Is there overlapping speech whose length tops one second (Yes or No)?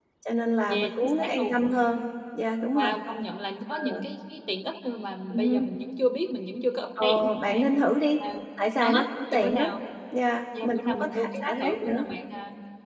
Yes